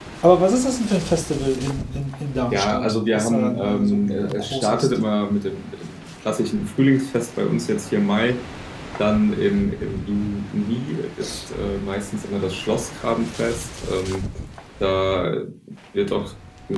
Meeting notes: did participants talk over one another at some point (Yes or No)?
Yes